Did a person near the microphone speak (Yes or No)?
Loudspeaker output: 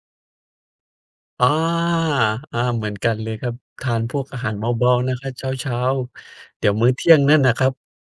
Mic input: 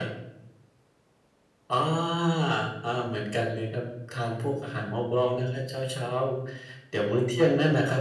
No